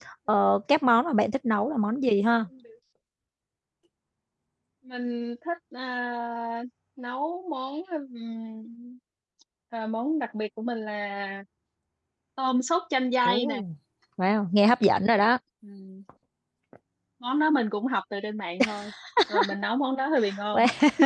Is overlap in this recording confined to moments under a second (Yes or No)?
Yes